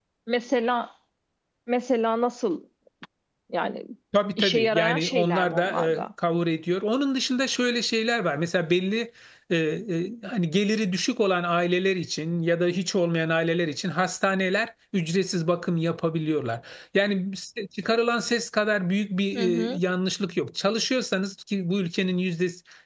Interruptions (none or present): present